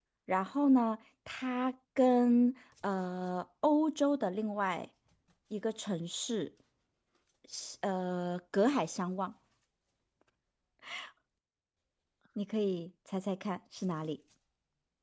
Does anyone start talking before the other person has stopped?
No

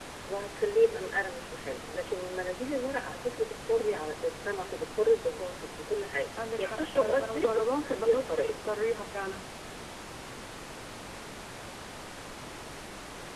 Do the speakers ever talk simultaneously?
Yes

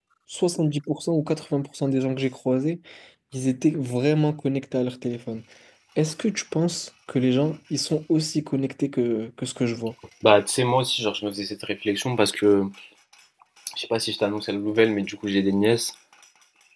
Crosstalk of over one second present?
No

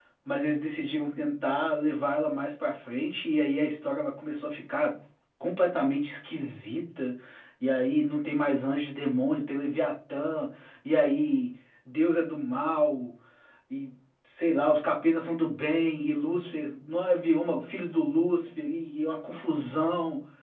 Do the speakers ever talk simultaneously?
No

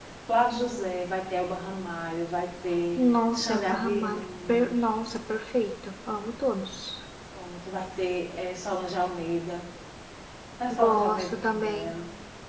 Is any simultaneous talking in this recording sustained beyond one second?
Yes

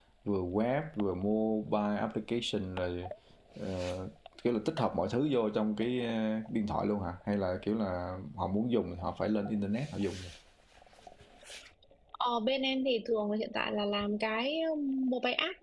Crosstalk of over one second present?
No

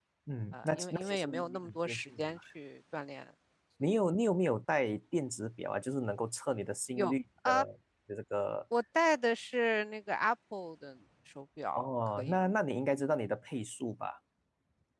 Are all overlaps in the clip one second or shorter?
No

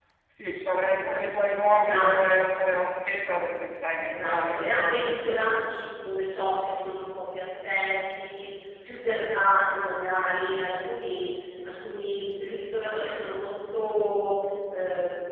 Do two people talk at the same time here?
Yes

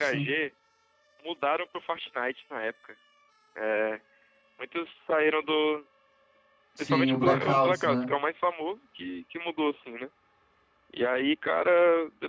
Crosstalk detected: Yes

